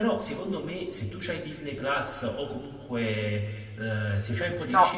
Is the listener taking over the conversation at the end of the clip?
No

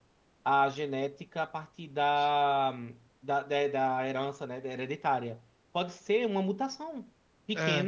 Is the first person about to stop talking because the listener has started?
No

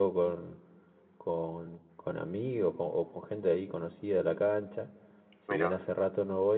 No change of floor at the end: Yes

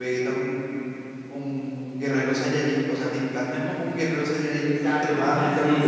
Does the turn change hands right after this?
Yes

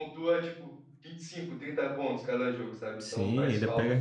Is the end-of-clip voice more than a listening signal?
Yes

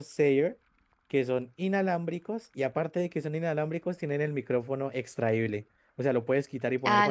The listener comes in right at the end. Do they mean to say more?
Yes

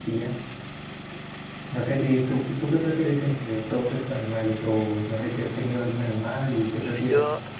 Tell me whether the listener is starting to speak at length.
Yes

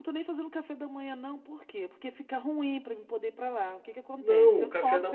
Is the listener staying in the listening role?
No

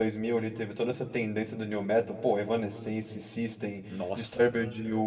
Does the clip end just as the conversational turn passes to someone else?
No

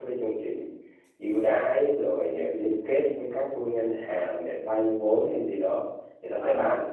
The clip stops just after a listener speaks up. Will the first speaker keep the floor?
Yes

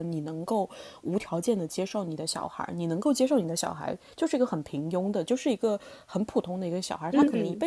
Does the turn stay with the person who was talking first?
Yes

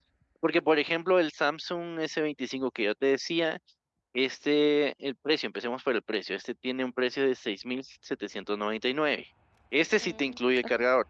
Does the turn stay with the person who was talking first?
Yes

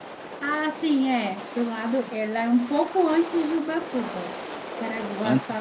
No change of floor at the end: Yes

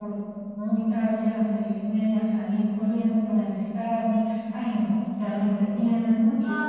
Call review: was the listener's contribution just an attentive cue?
No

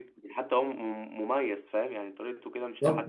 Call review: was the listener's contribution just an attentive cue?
No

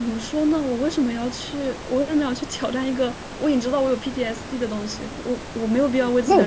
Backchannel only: No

